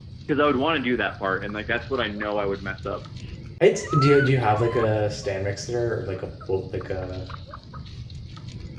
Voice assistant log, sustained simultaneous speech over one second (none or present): none